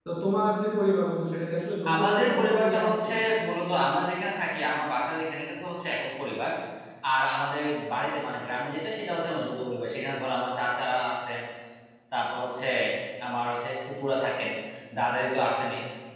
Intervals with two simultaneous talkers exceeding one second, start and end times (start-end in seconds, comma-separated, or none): 1.9-3.3